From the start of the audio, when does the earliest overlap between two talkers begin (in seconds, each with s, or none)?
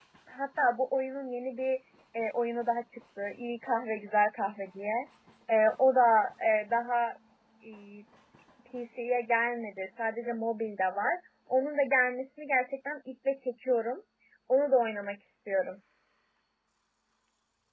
none